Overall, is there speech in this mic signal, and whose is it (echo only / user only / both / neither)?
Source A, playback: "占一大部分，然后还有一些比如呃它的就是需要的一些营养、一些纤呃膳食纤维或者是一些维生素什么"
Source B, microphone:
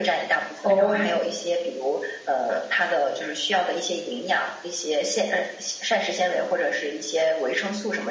both